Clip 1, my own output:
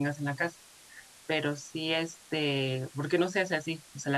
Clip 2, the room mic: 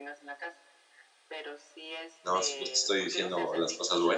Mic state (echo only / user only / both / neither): both